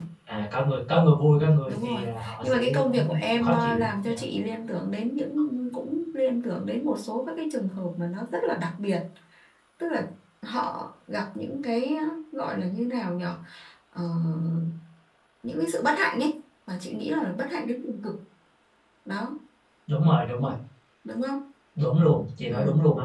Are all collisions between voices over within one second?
No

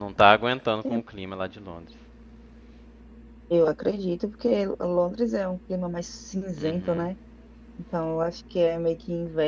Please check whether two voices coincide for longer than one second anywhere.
No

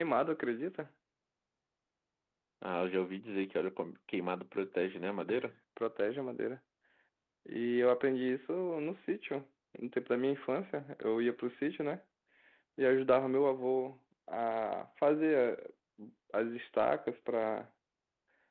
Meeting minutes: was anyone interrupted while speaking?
No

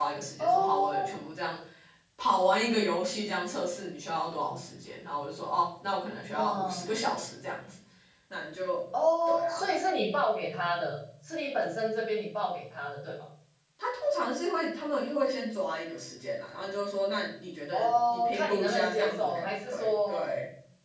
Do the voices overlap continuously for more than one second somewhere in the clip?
Yes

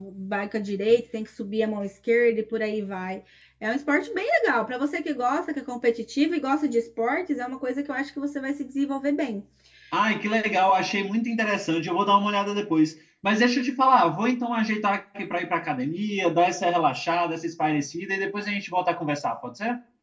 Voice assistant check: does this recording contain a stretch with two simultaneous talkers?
No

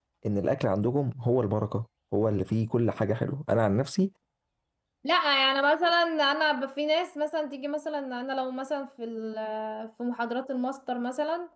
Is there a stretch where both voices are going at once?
No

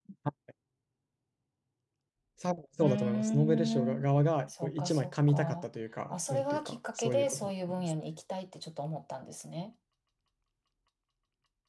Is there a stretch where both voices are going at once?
Yes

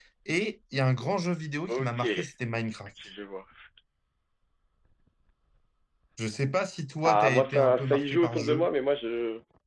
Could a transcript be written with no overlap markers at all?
No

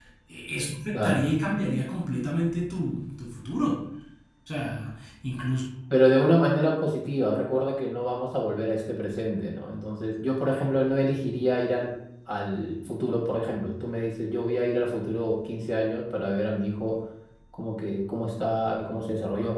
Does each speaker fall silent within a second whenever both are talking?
Yes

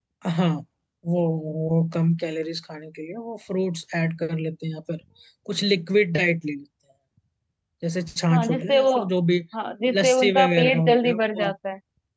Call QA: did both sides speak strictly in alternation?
No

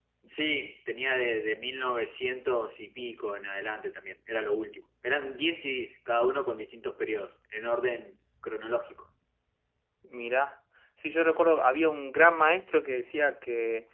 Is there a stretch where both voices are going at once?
No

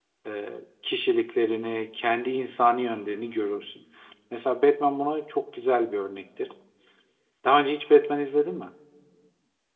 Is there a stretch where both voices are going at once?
No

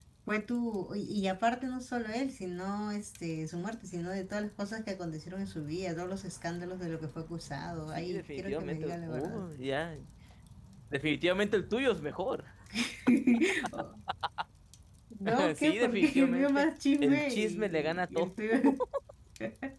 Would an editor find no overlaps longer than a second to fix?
No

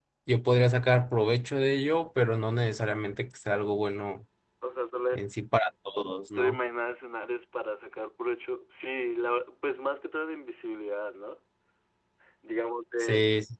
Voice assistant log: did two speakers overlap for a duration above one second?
No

